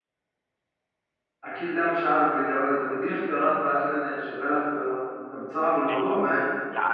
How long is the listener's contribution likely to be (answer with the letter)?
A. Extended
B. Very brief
A